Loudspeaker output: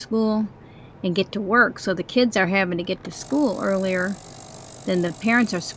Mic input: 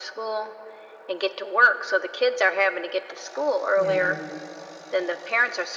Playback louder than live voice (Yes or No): Yes